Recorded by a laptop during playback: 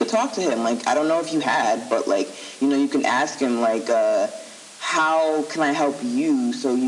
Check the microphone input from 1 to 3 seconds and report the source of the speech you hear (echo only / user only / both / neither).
echo only